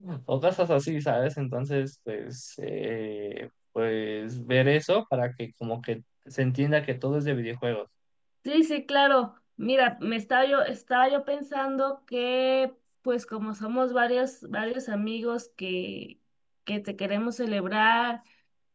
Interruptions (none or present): none